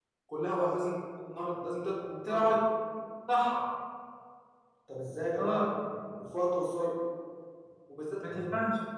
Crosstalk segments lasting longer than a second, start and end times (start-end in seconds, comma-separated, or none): none